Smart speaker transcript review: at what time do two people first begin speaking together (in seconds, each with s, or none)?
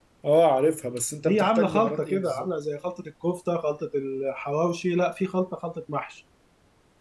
1.3 s